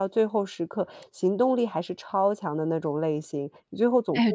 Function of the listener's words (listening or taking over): taking over